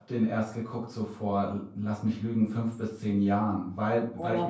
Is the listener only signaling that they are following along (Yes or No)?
Yes